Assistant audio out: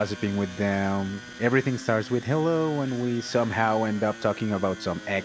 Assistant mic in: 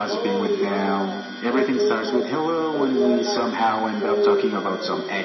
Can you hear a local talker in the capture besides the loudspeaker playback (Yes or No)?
Yes